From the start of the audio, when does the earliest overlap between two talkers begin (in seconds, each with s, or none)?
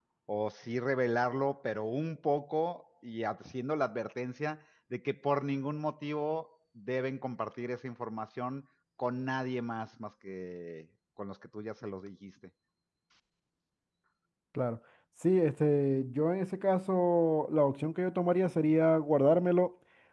none